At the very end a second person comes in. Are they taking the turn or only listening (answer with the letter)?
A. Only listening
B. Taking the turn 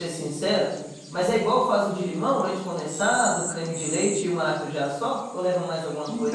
B